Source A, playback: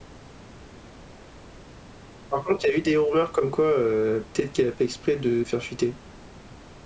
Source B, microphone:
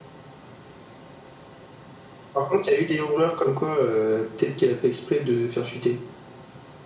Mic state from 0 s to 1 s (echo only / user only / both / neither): neither